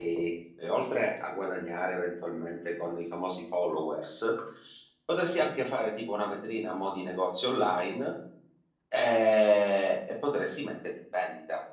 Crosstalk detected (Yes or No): No